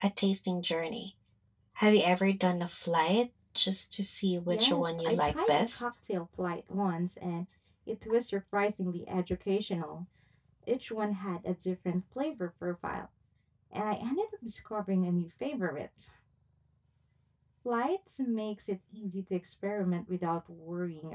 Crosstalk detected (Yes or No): Yes